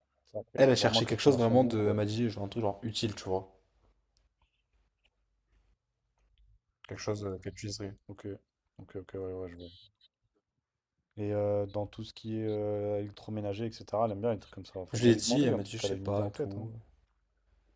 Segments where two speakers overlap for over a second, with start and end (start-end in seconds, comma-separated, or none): 0.6-2.0, 14.9-16.7